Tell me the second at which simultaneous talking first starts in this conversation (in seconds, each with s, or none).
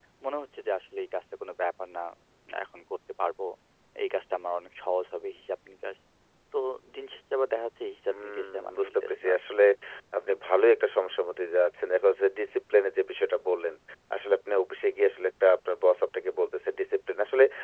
8.1 s